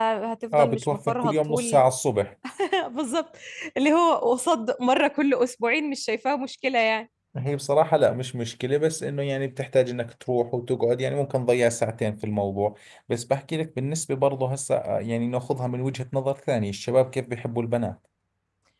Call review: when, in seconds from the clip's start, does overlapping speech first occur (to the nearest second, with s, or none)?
1 s